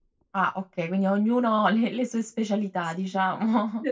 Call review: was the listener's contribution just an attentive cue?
No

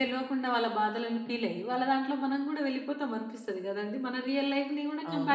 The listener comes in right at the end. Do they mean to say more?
Yes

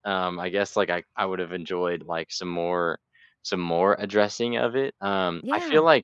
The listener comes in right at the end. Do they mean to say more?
No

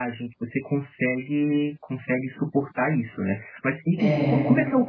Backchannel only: Yes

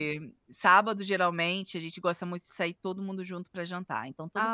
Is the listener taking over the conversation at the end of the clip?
Yes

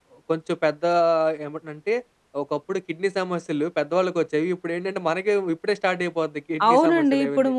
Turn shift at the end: Yes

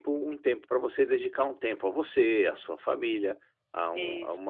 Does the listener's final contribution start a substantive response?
No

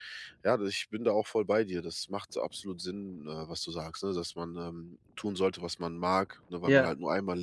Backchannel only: Yes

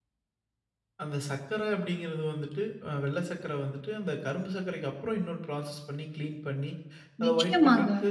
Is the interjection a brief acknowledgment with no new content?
Yes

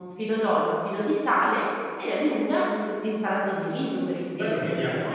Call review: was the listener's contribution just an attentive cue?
No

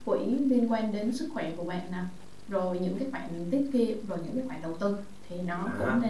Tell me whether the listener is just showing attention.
No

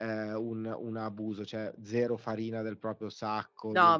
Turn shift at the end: Yes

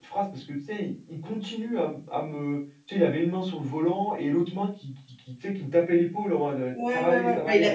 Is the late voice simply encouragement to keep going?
No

